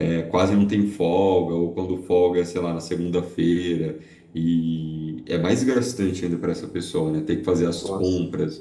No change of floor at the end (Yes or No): Yes